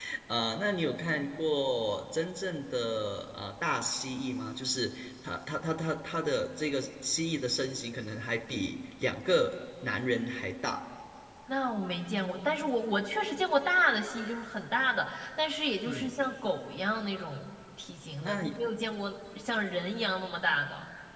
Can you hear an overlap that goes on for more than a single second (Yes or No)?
No